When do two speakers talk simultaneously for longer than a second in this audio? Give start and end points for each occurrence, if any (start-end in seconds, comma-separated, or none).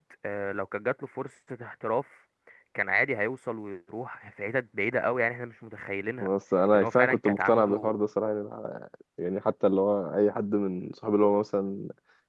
6.7-8.0